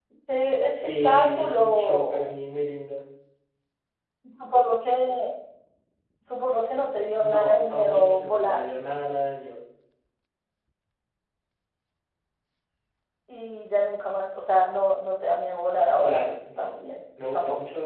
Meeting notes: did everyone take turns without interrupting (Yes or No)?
No